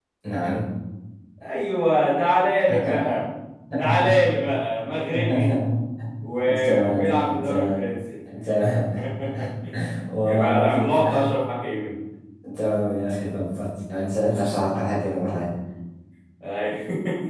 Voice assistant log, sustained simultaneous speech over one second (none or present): present